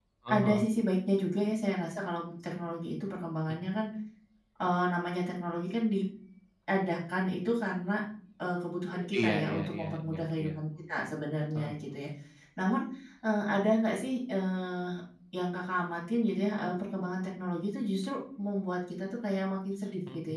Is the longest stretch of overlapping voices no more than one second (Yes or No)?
No